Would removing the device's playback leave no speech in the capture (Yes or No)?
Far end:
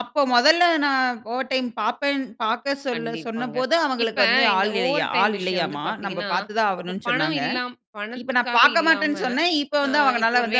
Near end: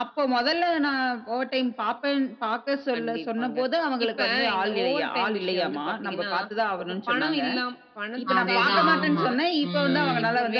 No